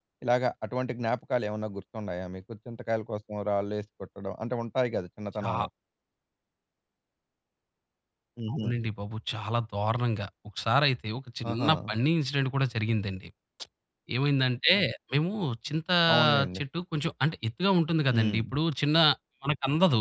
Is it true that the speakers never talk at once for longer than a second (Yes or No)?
Yes